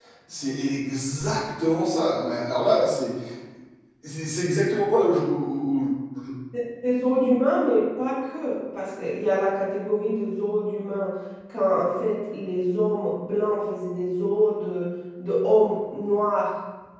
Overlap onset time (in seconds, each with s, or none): none